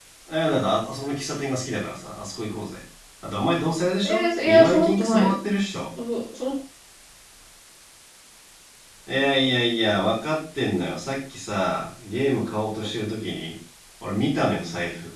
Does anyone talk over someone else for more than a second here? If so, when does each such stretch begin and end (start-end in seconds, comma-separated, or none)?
4.0-5.3